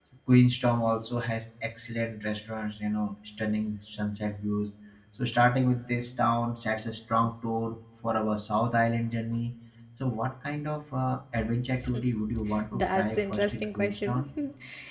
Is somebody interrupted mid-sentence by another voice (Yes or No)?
Yes